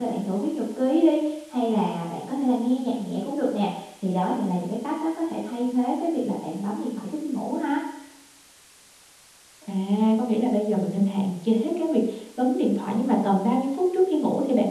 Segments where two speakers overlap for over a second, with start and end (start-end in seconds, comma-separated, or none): none